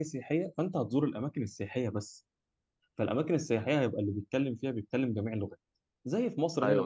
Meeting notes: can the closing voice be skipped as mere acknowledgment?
Yes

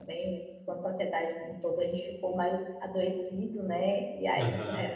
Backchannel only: Yes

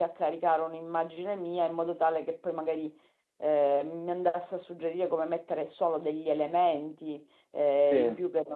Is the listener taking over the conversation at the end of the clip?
No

